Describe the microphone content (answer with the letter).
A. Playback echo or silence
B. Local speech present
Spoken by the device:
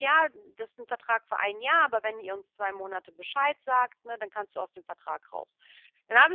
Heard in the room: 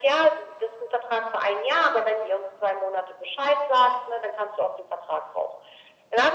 A